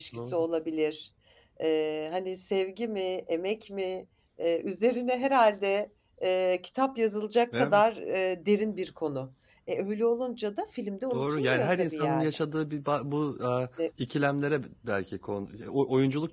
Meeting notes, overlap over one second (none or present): present